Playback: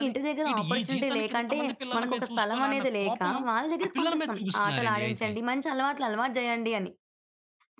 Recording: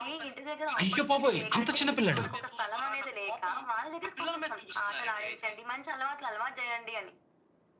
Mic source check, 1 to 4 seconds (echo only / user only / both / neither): both